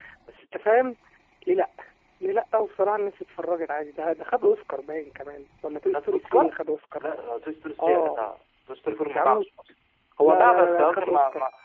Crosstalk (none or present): present